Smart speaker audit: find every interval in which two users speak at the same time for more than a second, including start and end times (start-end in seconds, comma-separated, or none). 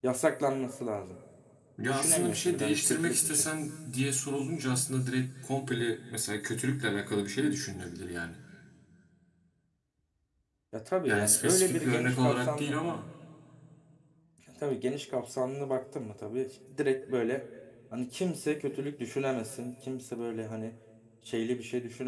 1.8-3.5, 11.1-13.1